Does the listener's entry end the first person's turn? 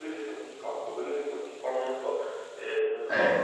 No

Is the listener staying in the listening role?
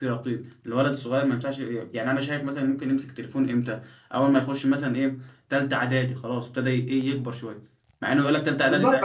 No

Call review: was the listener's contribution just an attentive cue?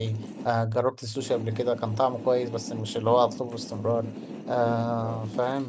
Yes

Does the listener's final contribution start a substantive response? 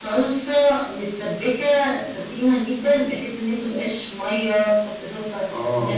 No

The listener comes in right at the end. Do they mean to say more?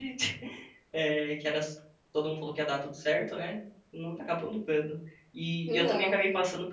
No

